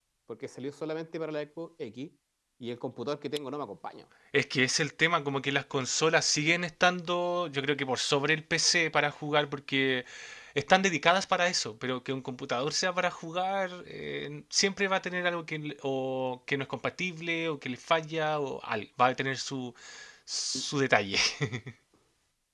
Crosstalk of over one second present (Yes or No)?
No